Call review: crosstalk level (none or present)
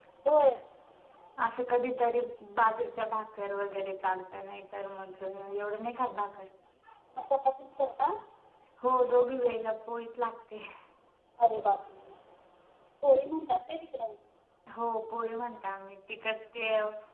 none